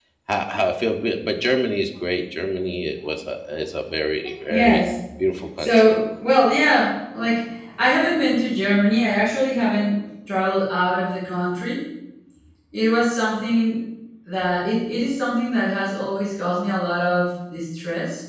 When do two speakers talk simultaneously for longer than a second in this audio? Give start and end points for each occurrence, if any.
none

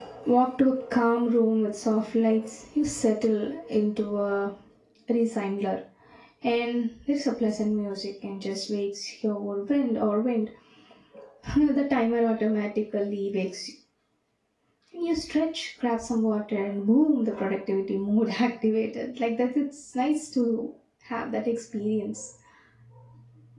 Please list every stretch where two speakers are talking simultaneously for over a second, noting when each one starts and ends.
none

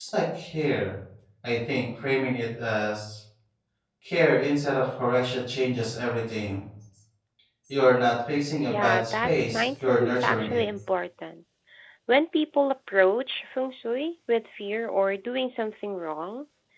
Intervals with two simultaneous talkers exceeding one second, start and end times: 8.7-10.6

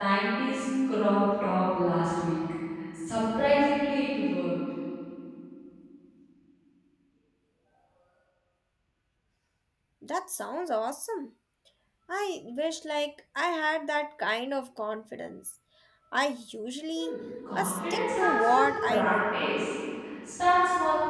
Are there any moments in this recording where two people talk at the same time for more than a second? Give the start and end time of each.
17.5-19.4

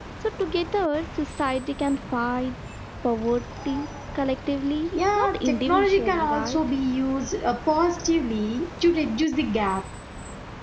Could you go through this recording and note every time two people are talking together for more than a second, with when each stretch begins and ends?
5.1-6.6

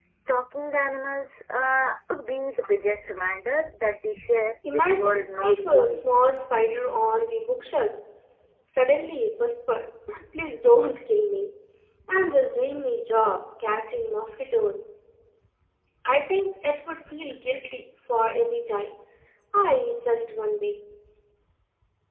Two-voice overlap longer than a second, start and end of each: 4.7-6.0

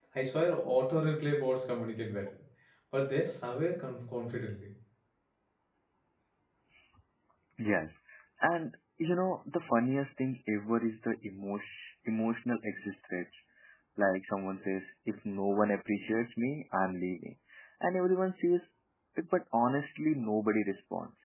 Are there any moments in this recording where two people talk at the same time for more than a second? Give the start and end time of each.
none

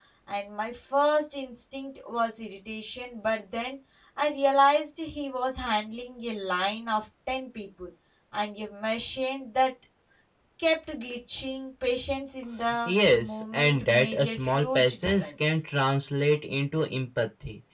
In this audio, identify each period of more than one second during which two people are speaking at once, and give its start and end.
12.8-15.6

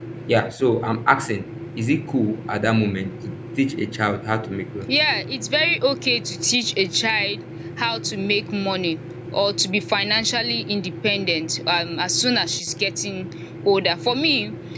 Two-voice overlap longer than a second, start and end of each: none

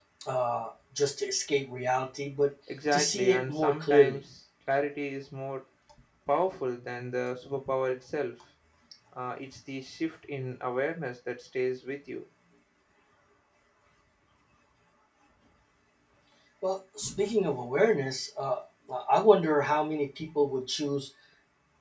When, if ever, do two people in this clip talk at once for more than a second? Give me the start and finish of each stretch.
2.9-4.2

